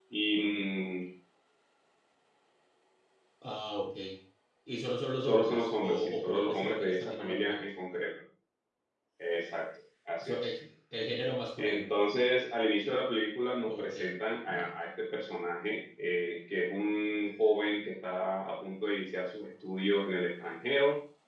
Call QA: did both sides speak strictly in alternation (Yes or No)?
No